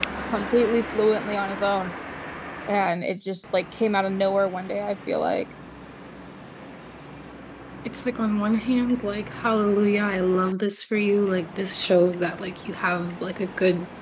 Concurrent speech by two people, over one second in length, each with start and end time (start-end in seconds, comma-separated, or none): none